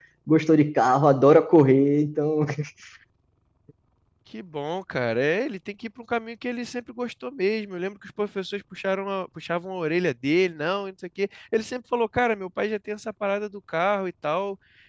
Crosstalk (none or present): none